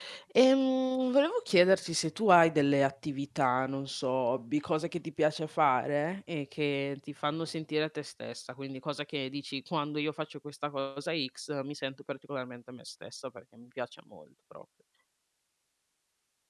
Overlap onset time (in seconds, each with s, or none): none